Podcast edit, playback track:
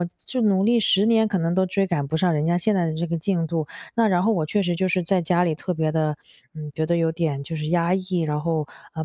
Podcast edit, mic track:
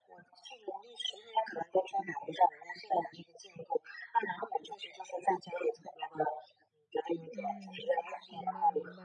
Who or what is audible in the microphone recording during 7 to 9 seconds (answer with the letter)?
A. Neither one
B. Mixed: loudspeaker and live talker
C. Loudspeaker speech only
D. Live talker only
B